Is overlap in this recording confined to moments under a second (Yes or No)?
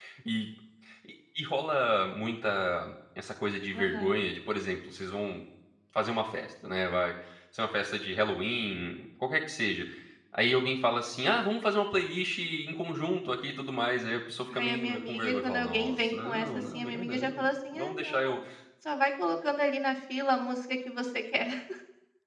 No